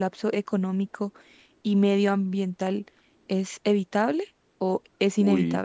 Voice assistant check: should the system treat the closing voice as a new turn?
Yes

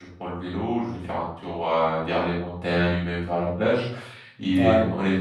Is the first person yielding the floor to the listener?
No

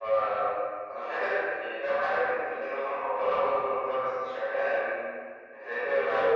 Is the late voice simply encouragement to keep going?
No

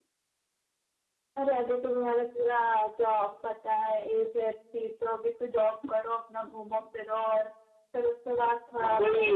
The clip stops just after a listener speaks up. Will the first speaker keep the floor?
No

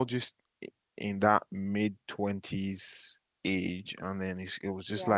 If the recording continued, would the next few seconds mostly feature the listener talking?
No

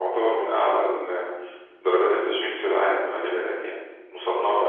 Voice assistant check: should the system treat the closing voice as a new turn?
Yes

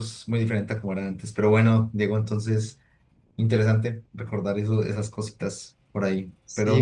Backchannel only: No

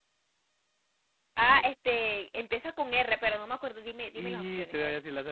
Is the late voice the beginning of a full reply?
Yes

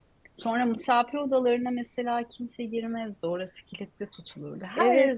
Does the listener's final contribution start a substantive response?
Yes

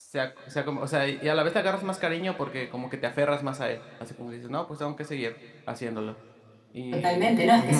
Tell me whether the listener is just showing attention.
No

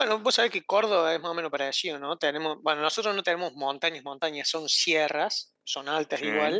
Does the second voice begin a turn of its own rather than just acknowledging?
No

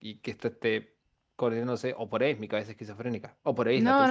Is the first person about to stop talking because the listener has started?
Yes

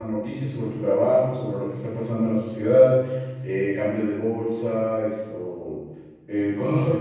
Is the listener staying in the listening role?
Yes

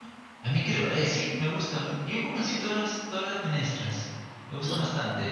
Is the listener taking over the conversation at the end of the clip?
No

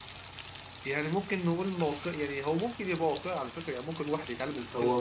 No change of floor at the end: No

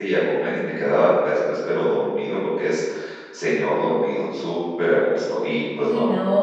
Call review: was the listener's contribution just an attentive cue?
No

